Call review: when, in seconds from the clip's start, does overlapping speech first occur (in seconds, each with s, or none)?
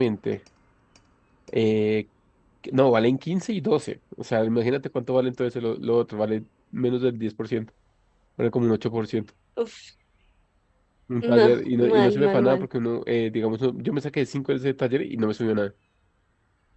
11.2 s